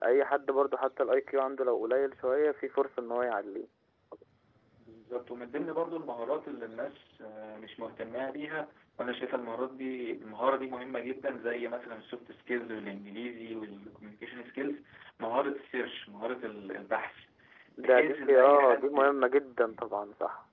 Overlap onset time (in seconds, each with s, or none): 17.9 s